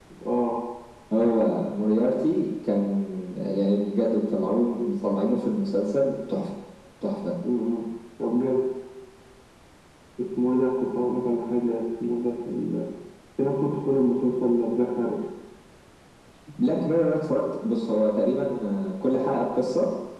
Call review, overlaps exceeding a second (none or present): none